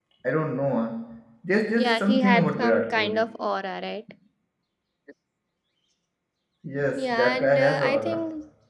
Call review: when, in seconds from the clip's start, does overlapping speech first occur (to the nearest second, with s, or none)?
2 s